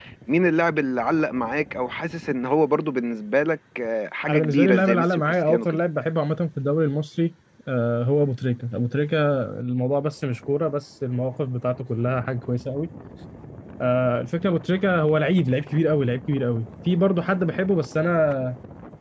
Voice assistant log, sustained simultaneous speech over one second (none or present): present